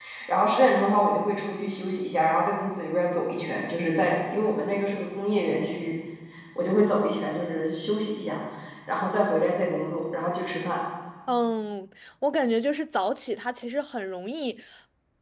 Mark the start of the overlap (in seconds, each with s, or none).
none